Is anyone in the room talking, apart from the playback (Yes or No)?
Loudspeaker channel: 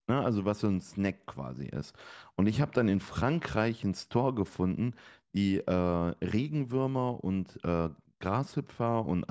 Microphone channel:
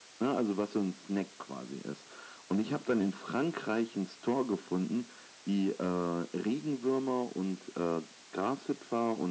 No